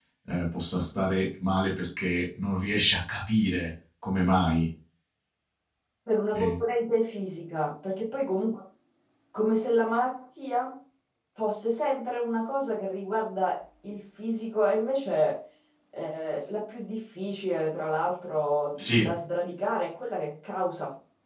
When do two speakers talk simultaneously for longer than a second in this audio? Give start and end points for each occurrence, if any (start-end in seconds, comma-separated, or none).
none